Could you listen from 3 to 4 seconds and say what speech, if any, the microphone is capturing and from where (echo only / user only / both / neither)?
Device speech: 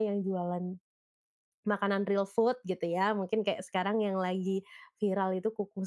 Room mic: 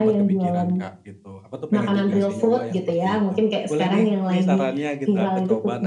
both